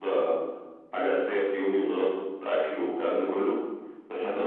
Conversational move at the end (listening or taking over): listening